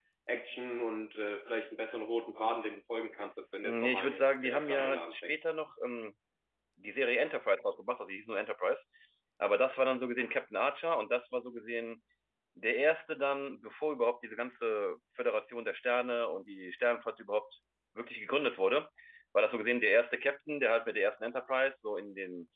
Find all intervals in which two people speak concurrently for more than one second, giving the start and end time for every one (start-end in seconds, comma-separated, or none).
3.6-5.5